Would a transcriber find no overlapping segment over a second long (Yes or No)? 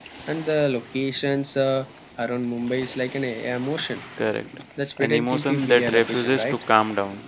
No